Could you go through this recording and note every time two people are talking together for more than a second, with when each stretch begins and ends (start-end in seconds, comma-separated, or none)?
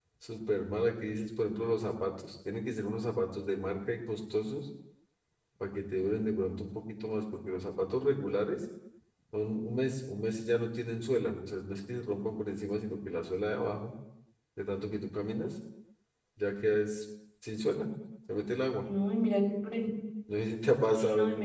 none